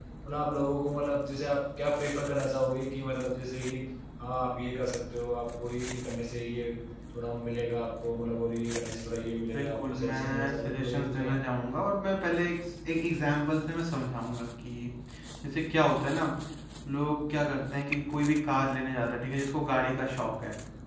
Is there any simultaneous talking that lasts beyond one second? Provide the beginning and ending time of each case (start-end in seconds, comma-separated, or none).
9.5-11.3